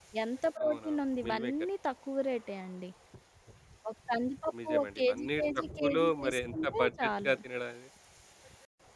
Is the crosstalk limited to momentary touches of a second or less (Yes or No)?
No